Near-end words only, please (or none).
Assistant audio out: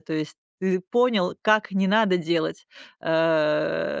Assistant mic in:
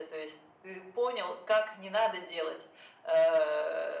none